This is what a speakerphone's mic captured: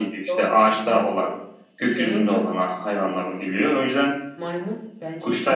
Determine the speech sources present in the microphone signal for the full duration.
echo only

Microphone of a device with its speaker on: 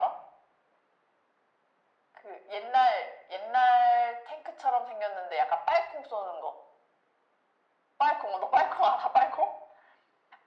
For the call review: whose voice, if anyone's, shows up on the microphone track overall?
echo only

